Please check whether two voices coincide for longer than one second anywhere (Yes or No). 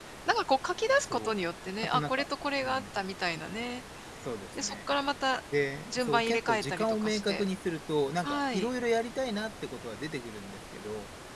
Yes